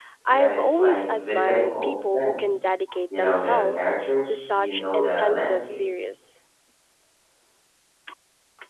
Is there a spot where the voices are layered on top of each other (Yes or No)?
Yes